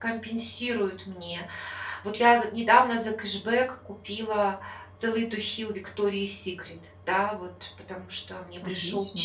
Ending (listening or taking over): listening